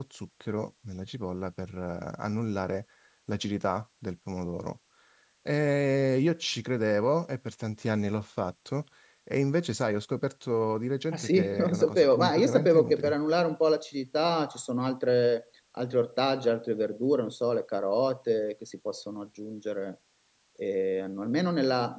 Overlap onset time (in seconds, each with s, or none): 11.1 s